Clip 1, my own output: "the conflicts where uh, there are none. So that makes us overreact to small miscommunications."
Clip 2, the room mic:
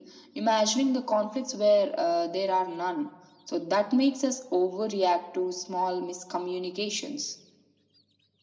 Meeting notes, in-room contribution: none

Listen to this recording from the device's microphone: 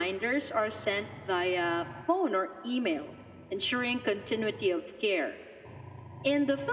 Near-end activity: none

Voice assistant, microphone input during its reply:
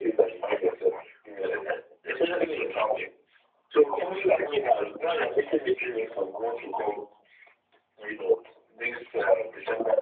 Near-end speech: none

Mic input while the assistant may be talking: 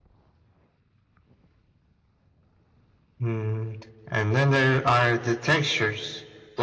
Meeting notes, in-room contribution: none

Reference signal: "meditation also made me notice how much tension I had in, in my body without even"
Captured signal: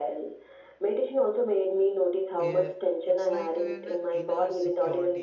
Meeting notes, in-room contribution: present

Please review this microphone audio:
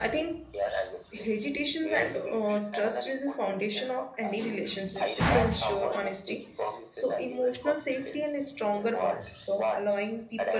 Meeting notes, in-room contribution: present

